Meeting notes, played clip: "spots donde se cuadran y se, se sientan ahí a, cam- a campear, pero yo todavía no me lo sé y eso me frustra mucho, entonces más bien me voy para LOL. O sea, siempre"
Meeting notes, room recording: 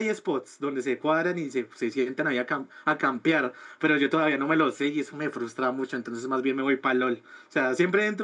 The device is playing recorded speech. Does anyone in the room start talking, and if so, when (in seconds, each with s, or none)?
none